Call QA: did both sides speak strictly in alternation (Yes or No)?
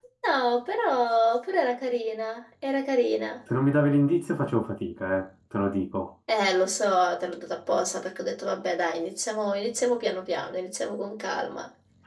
Yes